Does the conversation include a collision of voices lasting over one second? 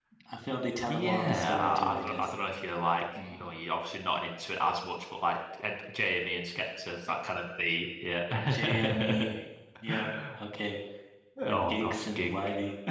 Yes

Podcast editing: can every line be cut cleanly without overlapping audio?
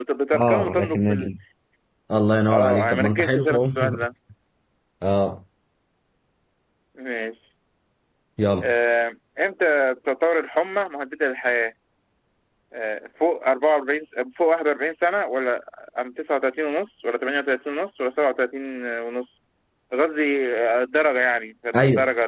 No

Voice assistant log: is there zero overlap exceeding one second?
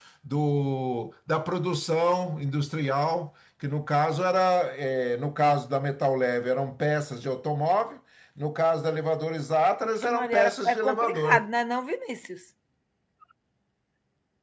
No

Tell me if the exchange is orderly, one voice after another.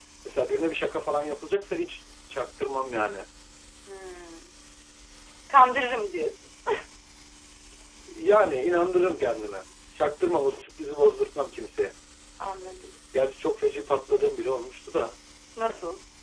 Yes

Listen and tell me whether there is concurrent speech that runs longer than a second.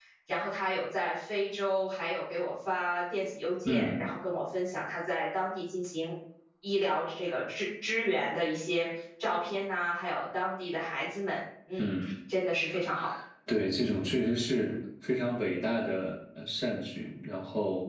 No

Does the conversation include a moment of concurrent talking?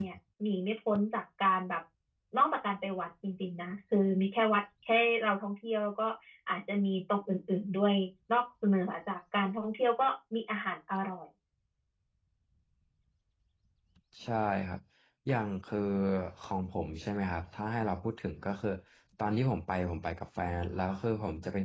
No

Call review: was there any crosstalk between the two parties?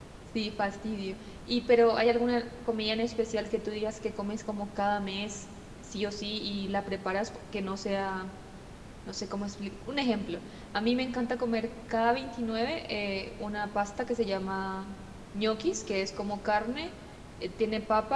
No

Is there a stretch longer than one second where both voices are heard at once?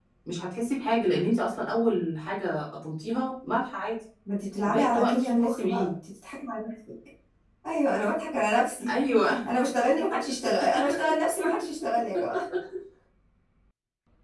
Yes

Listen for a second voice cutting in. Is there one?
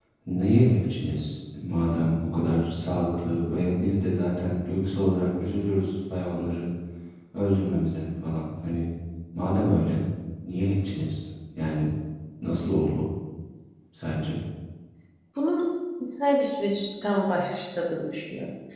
No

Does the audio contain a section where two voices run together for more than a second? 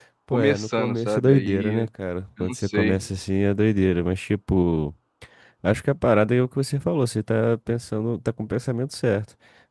Yes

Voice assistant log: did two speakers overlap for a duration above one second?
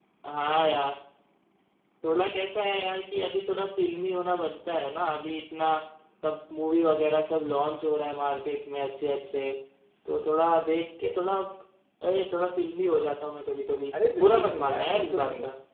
Yes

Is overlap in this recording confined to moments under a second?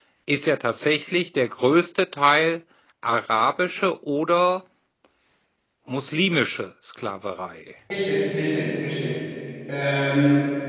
Yes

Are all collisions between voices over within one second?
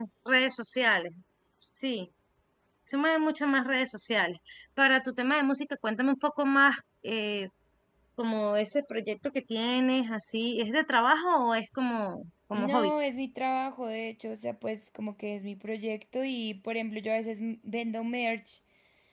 Yes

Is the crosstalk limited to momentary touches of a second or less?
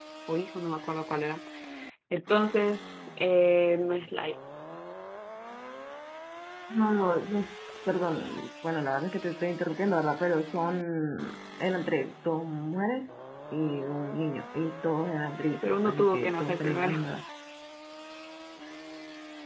No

